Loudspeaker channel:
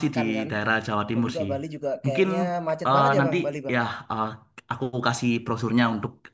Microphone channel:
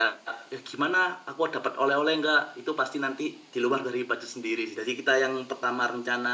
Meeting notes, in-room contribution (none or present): present